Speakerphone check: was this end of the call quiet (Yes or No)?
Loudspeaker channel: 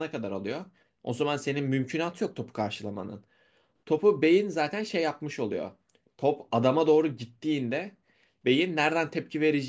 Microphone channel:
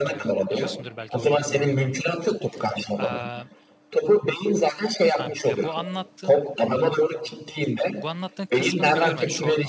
No